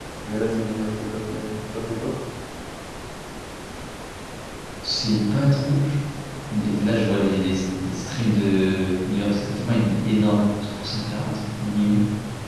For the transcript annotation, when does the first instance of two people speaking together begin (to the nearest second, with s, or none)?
none